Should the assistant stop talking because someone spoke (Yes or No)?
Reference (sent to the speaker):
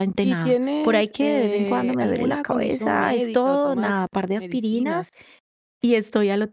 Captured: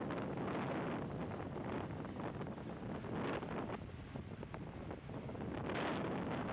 No